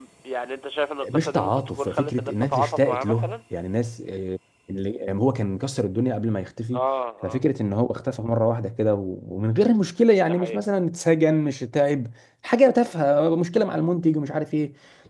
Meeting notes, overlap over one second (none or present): present